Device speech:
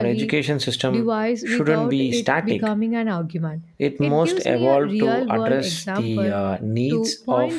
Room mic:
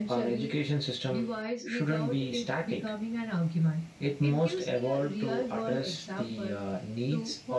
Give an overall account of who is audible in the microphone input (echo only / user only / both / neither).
echo only